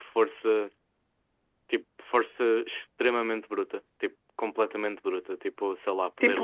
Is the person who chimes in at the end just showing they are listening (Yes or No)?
Yes